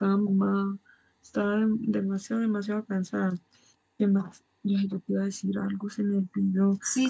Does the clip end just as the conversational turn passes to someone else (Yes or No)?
Yes